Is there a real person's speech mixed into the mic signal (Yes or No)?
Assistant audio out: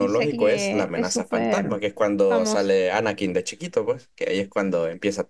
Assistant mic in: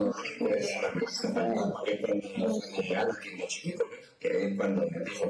No